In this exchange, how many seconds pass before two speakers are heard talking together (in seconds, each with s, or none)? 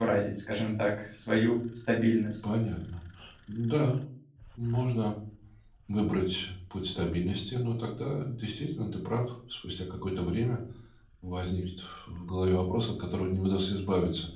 none